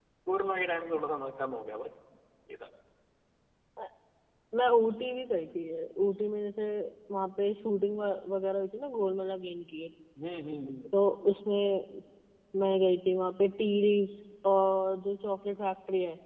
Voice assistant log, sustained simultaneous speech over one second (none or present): none